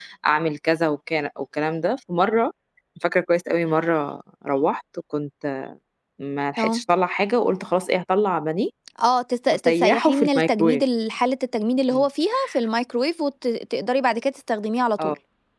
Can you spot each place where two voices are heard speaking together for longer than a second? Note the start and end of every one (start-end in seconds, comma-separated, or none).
9.5-10.8